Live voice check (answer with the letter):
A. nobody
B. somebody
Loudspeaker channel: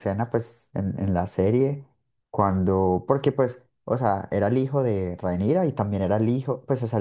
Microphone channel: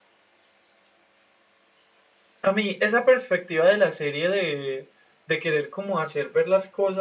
B